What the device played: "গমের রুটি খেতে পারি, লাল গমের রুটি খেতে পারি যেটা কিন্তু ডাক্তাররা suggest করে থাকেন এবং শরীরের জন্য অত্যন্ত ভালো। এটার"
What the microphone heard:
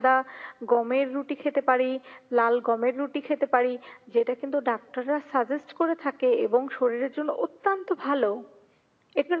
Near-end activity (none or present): none